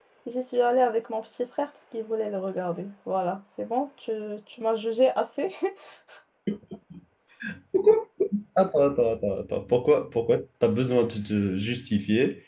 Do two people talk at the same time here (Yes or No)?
No